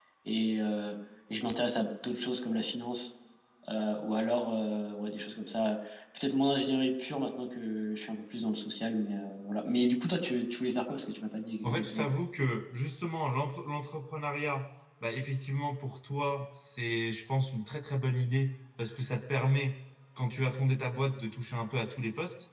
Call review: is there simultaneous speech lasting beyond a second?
No

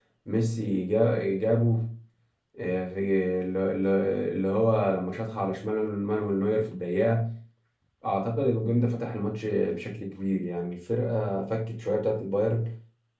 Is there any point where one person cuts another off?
No

